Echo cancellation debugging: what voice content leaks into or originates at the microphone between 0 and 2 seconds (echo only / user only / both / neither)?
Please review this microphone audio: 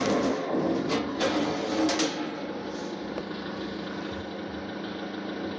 neither